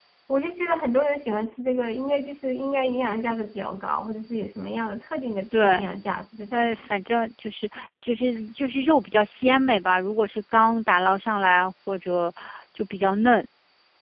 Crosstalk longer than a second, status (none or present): none